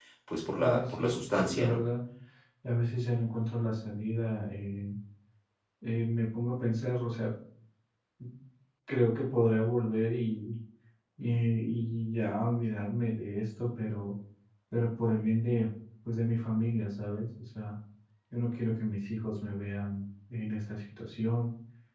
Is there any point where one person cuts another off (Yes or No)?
Yes